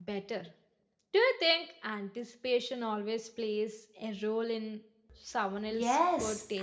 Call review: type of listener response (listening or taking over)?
taking over